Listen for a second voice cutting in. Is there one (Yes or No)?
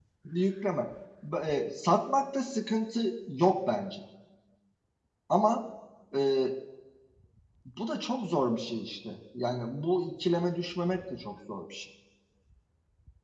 No